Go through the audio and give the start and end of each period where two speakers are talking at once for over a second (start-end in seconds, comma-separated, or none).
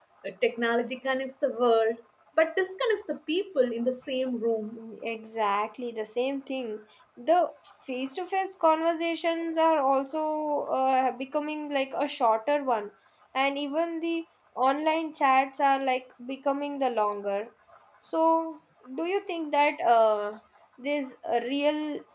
none